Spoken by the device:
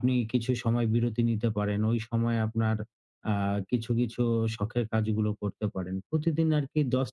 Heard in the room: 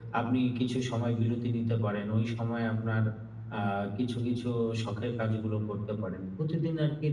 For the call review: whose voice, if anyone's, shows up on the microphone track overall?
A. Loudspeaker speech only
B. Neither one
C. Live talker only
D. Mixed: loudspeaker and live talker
A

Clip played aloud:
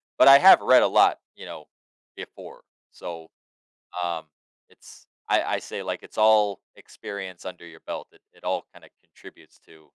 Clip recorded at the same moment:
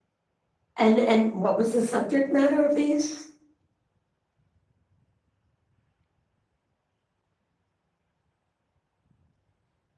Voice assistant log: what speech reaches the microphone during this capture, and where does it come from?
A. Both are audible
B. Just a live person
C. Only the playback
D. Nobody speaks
B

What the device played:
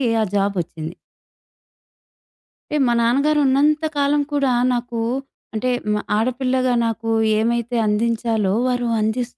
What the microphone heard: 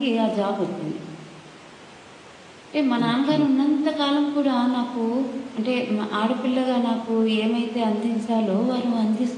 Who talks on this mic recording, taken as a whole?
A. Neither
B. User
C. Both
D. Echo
C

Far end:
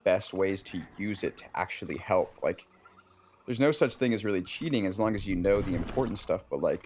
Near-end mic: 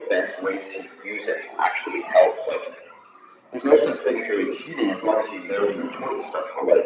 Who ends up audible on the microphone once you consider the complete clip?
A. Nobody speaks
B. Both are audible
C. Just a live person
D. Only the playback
D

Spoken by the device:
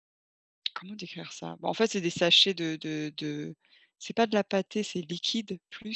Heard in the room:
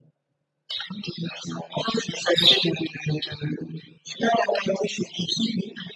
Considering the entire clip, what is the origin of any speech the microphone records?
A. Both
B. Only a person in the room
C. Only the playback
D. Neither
C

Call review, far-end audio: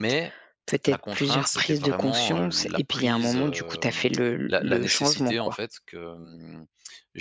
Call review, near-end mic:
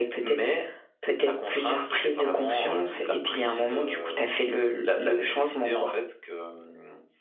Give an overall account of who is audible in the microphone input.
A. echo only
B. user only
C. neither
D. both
A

